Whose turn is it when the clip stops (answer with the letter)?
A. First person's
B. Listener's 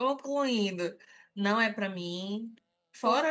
A